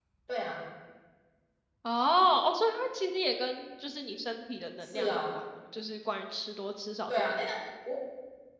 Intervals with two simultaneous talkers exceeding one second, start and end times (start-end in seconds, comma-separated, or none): none